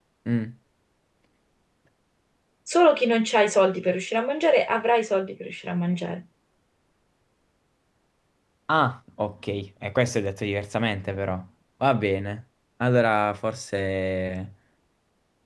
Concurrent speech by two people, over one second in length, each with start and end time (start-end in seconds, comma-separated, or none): none